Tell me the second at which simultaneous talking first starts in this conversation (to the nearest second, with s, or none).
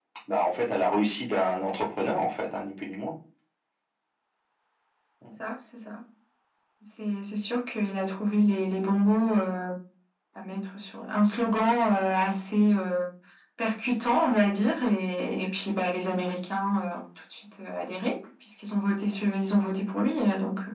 none